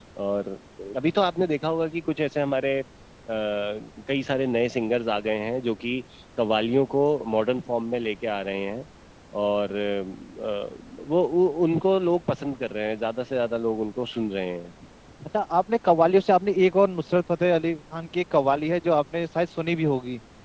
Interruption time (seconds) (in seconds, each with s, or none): none